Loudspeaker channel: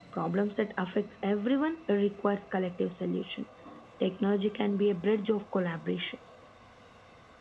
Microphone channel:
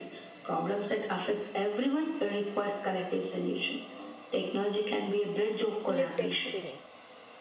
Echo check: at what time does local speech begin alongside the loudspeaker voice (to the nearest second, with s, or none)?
6 s